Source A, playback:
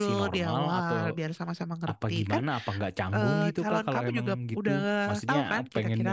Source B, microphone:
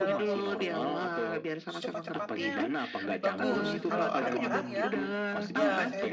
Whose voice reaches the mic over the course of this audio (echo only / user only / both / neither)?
both